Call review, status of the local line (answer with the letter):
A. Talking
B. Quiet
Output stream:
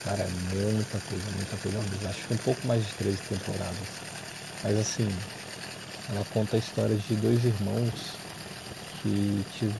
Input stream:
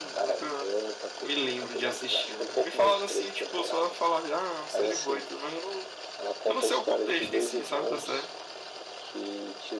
A